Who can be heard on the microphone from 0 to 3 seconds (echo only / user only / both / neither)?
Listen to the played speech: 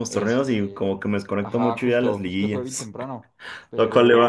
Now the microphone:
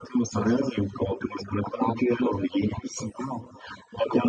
echo only